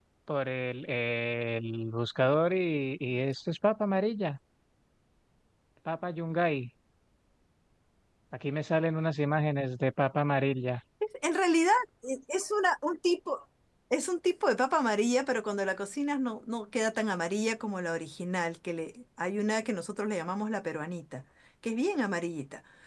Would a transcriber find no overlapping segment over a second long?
Yes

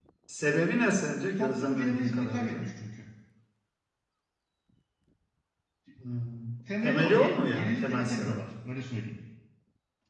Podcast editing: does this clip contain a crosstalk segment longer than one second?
Yes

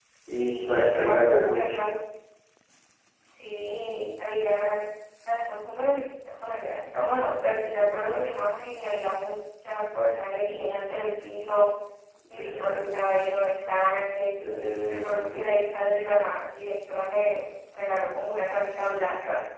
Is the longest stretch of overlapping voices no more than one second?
No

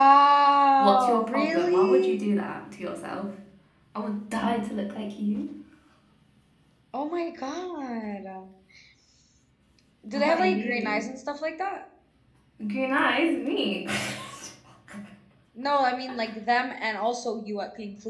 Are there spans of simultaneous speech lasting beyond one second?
Yes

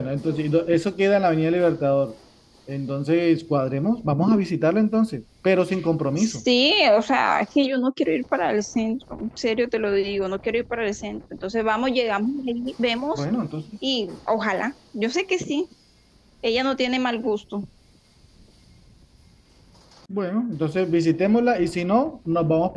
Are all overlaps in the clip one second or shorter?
Yes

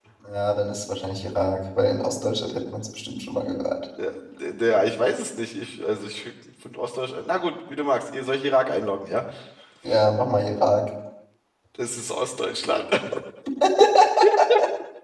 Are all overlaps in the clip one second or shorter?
Yes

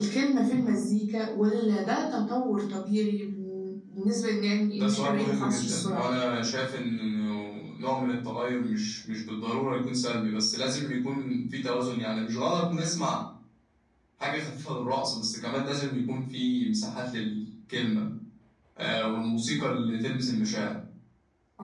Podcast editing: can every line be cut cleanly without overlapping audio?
No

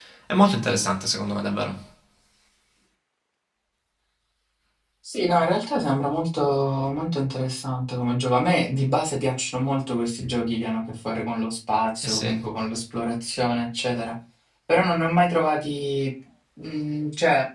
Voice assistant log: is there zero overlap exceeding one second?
Yes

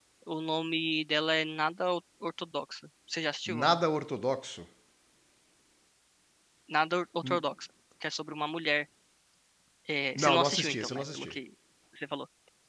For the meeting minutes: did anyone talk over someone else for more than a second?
Yes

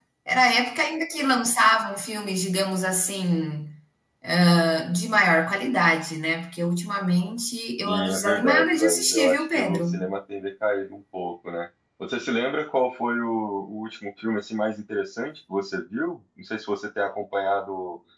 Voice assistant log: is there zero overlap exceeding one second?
No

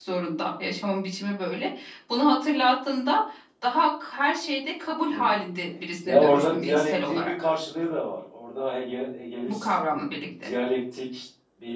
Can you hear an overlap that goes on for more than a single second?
Yes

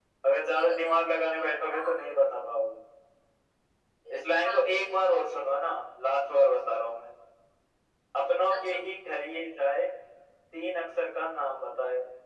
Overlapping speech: Yes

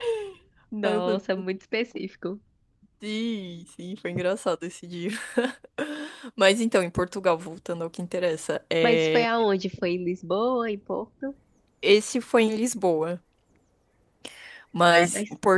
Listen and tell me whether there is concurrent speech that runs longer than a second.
No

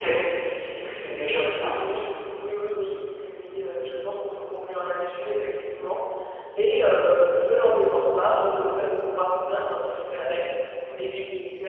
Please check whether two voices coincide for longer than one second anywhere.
No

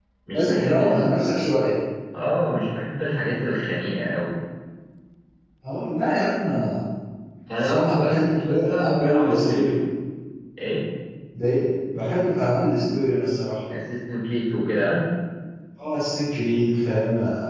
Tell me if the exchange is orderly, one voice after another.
No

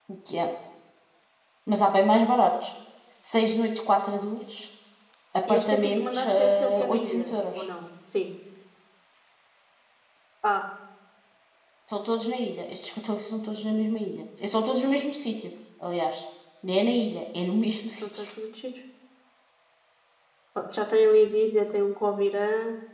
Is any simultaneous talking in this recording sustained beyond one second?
Yes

